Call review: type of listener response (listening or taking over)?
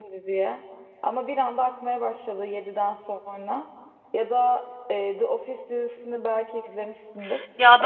taking over